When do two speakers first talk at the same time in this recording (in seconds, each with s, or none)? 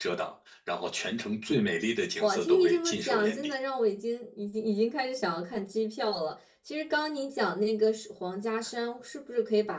2.2 s